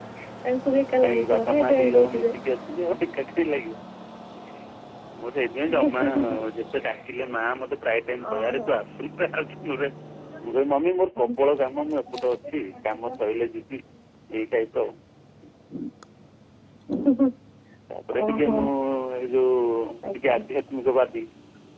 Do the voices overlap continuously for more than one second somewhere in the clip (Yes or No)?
Yes